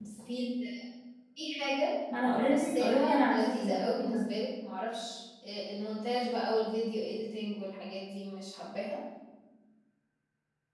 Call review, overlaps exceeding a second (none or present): present